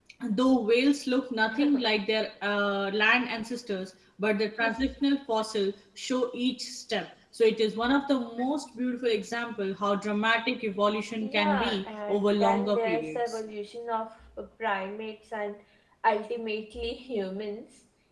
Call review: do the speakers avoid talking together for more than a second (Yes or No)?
No